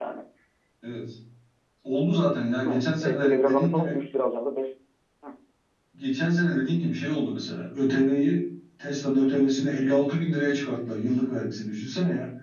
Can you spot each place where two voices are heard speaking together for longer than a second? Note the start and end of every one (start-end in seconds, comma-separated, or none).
2.6-4.0